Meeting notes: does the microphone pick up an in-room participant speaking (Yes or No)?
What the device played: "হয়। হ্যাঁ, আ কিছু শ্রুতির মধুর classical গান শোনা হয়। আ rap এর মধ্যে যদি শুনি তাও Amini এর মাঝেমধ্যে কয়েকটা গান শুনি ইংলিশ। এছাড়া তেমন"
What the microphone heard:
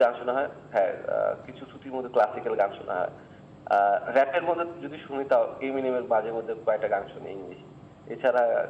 No